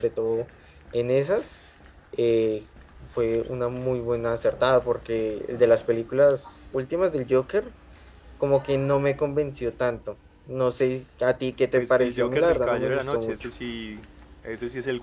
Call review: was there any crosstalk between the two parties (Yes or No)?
Yes